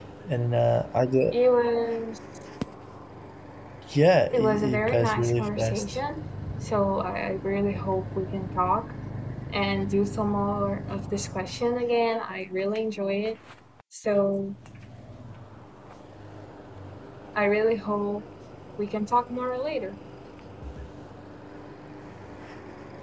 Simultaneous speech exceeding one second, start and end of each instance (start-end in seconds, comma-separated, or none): 4.3-5.8